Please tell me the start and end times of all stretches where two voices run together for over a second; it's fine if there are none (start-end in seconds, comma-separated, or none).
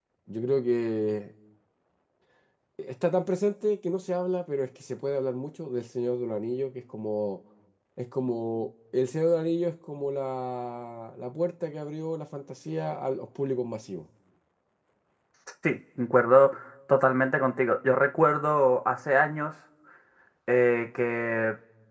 none